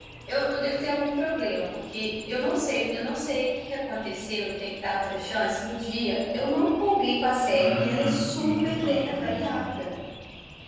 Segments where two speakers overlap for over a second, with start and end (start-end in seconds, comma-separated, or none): 7.5-9.5